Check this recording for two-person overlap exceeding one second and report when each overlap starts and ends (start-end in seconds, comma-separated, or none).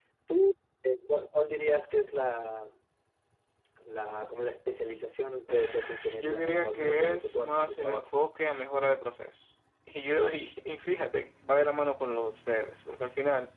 5.5-8.1